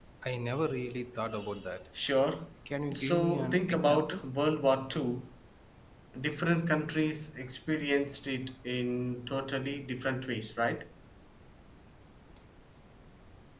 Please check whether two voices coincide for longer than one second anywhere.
Yes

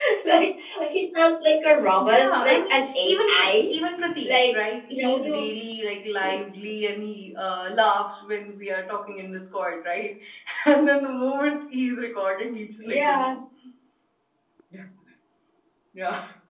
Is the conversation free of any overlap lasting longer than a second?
No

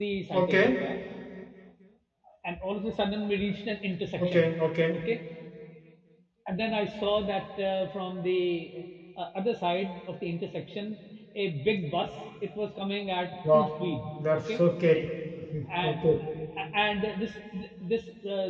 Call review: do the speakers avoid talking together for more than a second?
Yes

